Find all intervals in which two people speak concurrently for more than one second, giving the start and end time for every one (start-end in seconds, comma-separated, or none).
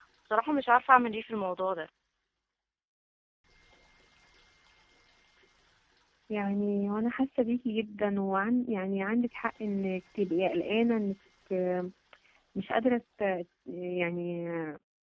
none